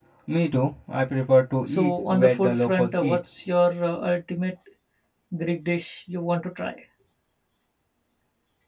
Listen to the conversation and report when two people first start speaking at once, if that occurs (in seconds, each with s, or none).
1.7 s